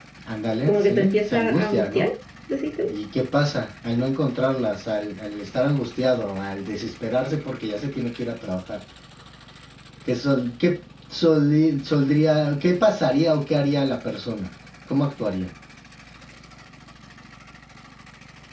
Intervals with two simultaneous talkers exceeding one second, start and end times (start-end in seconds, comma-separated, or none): 0.7-2.1